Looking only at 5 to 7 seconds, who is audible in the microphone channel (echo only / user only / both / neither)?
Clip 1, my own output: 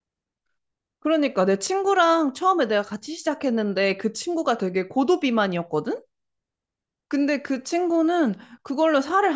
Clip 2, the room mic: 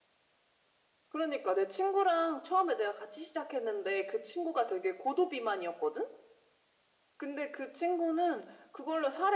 echo only